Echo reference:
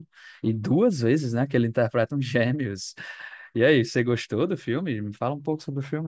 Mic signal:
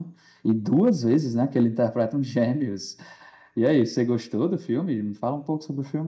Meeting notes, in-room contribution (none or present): none